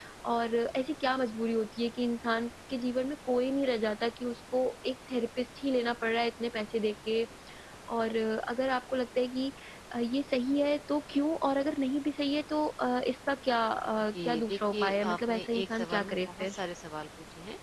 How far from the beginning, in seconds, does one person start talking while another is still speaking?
14.1 s

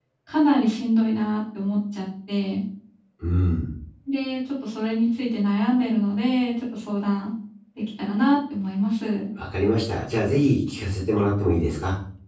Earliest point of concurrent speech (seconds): none

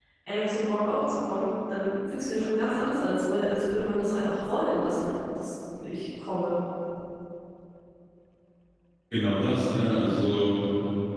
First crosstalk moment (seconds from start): none

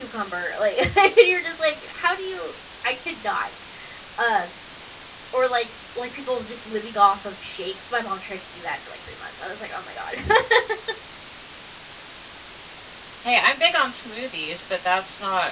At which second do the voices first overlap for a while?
none

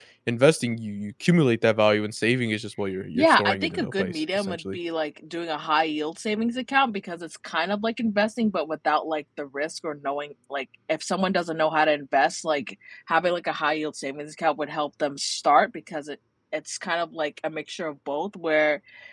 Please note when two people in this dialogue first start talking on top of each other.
3.1 s

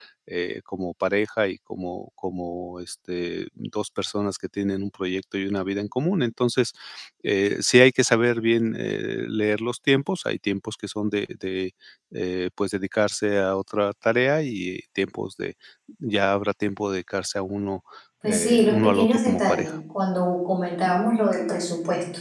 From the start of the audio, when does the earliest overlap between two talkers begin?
18.2 s

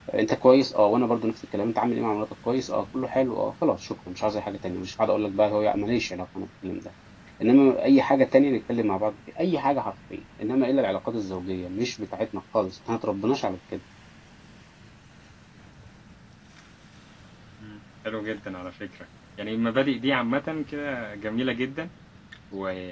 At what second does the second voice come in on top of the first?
none

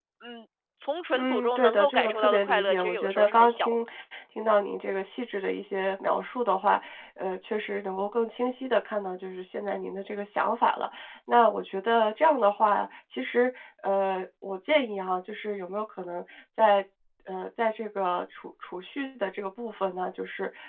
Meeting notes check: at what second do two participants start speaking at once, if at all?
1.1 s

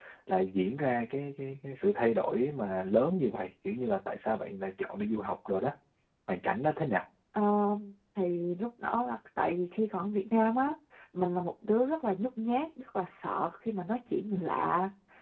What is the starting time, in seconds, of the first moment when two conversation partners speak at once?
none

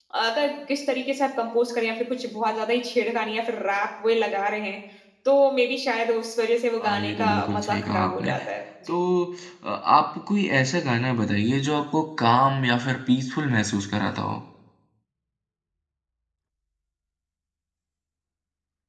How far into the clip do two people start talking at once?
6.8 s

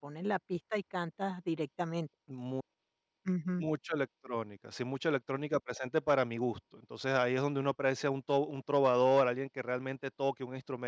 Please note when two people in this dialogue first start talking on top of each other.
none

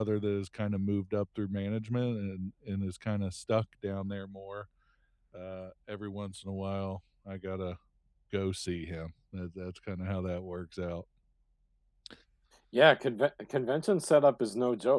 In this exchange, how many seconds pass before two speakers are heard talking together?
none

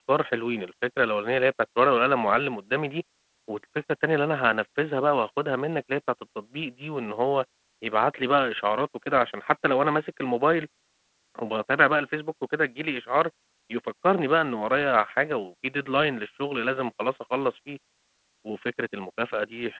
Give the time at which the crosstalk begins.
none

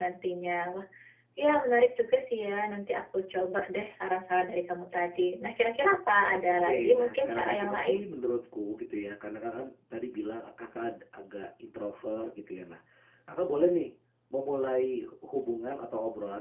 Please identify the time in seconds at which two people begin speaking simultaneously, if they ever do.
6.5 s

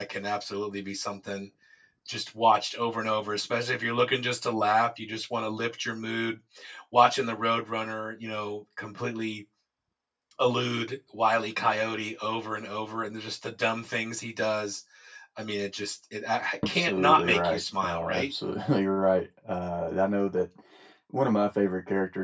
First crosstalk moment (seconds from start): 16.6 s

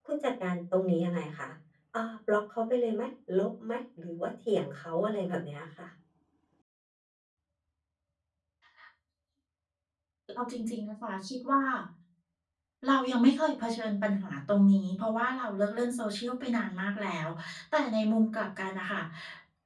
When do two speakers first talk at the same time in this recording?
none

